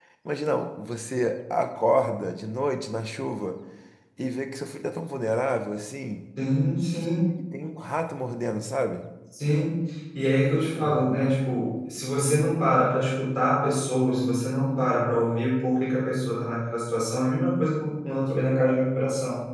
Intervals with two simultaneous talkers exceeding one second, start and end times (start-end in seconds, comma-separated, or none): none